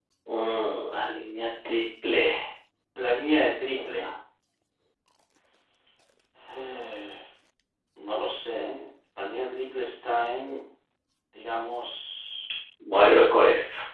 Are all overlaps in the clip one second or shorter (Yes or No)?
Yes